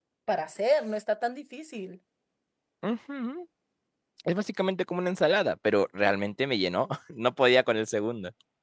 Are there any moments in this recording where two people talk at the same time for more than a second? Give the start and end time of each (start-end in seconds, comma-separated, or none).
none